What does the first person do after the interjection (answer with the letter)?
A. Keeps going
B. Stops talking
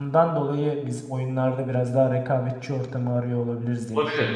B